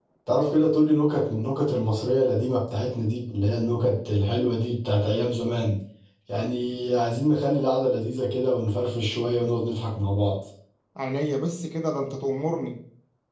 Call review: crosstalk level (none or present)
none